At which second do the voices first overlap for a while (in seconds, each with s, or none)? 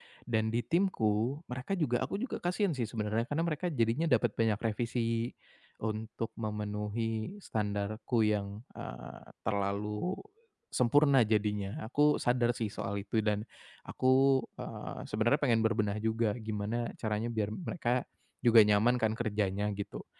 none